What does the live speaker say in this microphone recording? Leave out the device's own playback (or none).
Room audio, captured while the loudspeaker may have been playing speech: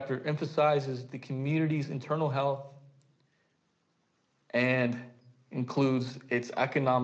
none